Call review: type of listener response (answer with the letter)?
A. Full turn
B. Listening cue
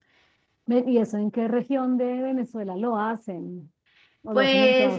A